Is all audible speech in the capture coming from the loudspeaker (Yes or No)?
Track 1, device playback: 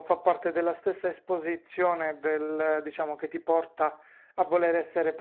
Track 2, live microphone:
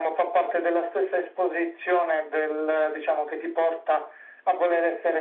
Yes